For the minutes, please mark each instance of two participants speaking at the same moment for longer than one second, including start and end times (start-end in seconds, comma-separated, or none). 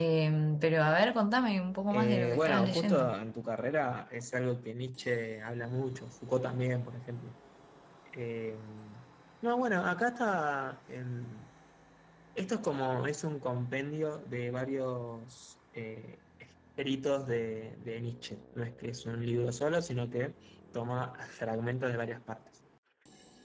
1.9-3.1